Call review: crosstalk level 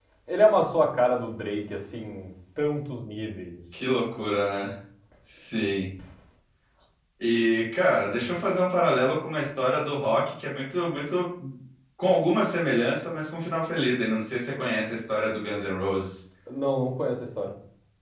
none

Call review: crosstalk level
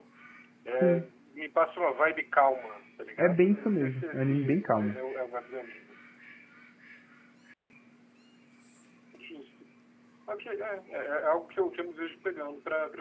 present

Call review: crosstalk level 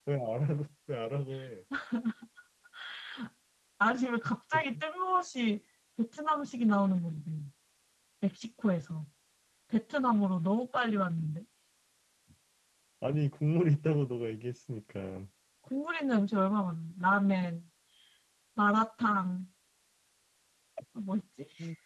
none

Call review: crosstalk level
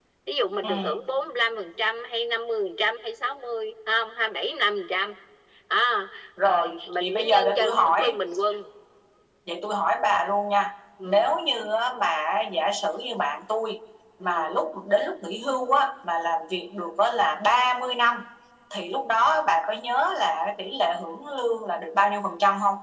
present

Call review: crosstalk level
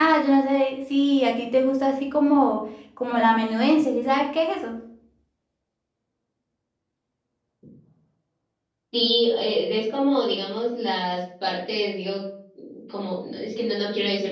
none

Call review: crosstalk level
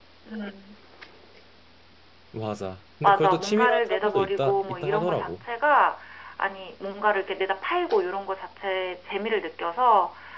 present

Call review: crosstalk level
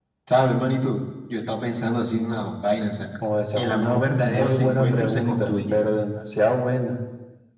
present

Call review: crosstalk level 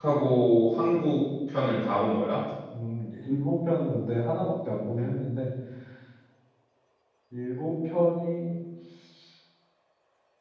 none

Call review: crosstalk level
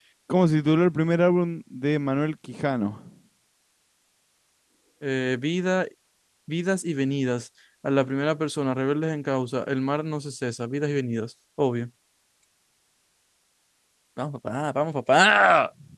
none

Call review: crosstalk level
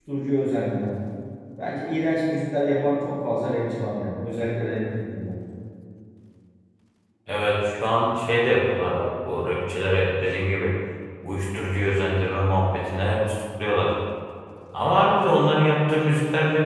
none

